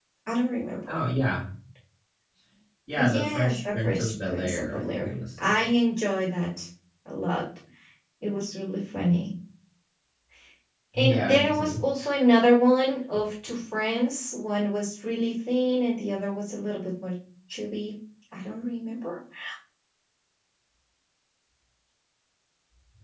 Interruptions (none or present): present